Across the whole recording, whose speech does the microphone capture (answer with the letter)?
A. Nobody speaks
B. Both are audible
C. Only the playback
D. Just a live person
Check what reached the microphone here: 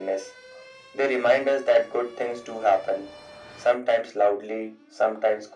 C